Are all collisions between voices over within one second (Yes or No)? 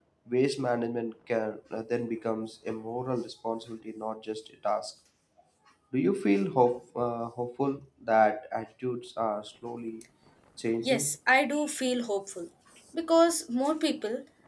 Yes